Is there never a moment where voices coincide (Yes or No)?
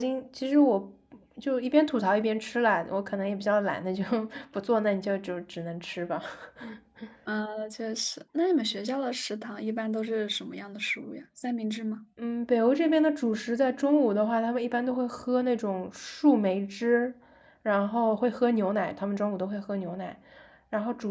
Yes